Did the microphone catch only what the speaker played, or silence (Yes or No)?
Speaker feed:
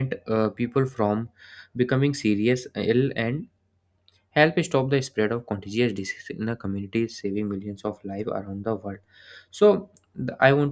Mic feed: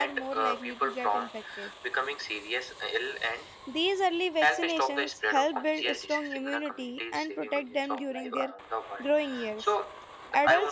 No